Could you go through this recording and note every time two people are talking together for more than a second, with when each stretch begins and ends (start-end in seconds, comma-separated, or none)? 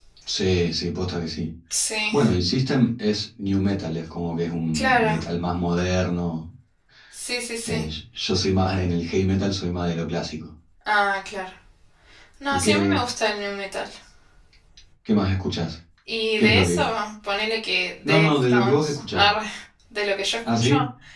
18.1-19.3